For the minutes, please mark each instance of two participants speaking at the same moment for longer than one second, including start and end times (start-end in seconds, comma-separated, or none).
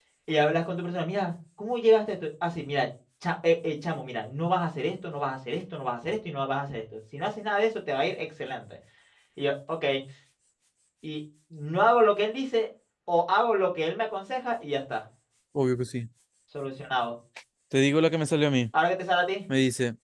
none